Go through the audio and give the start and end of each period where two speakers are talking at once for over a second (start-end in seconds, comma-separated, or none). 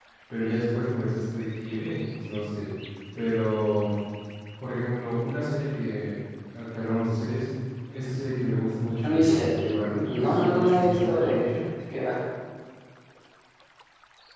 9.0-11.6